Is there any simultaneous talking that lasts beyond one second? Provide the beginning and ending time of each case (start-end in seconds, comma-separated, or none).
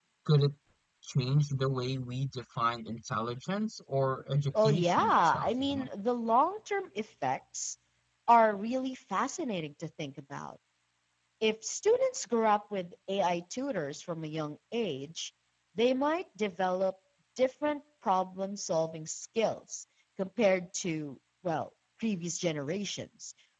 4.6-5.9